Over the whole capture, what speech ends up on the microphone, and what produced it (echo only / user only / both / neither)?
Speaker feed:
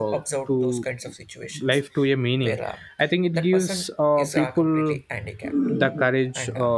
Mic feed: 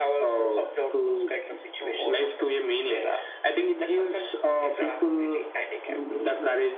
both